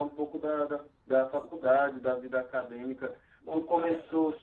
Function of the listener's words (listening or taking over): listening